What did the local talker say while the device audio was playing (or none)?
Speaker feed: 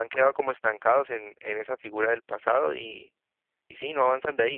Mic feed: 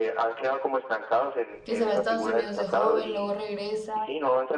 que se va a Estados Unidos de joven, luego regresa